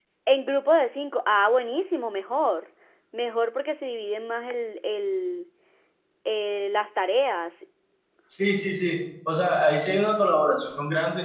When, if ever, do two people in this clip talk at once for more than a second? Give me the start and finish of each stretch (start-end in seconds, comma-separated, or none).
none